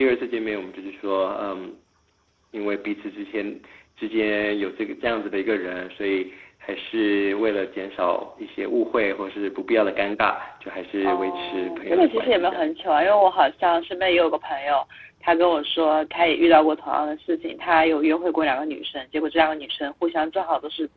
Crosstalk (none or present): present